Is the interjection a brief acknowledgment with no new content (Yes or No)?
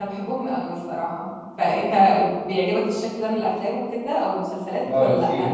No